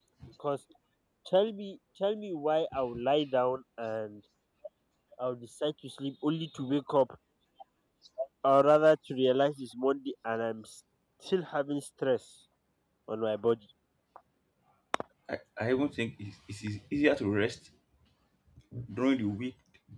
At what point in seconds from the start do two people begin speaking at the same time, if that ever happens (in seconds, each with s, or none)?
none